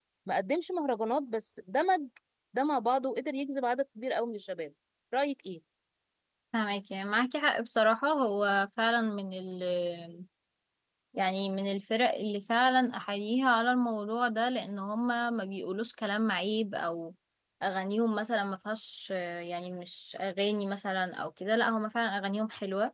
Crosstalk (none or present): none